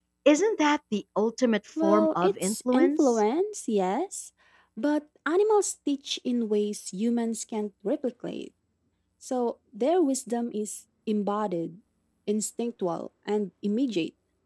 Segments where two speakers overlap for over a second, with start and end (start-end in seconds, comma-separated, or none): 1.8-3.2